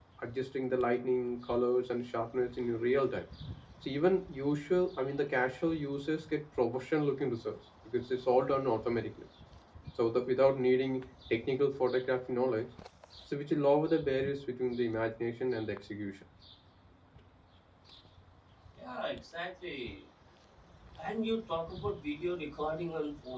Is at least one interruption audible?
No

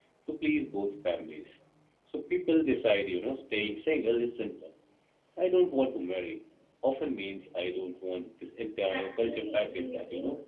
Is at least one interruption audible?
Yes, from 8.8 s

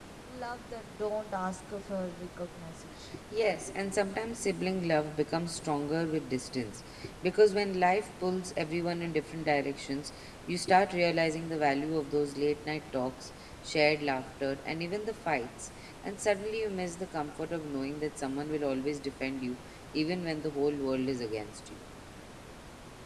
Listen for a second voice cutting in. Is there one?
No

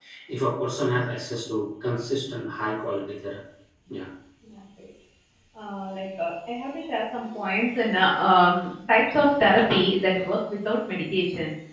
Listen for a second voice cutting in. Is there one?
No

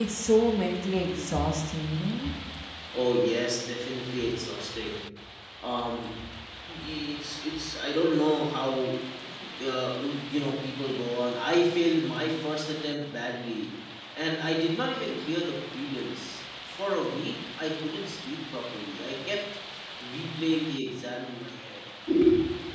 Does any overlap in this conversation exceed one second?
No

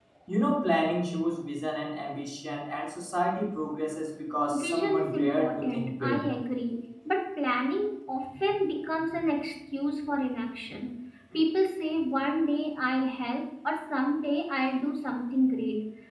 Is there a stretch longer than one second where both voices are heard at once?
Yes, from 4.5 s

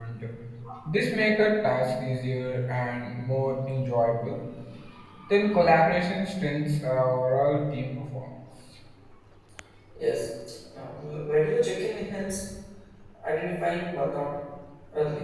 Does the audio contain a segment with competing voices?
No

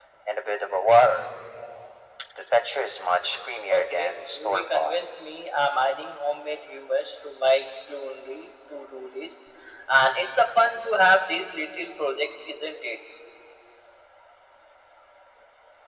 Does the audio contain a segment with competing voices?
Yes, from 3.7 s

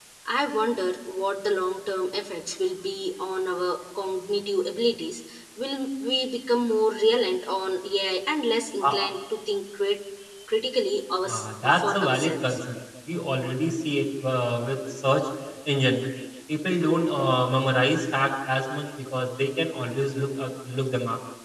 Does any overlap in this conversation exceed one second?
Yes, from 11.2 s

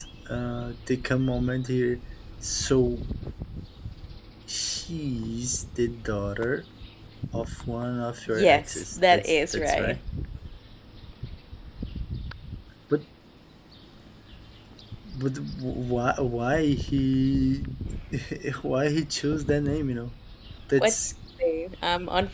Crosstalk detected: Yes, from 8.3 s

